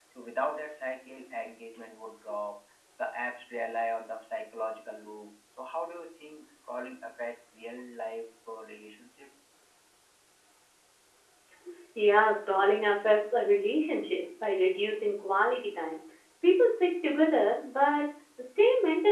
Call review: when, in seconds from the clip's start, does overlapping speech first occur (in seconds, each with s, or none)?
none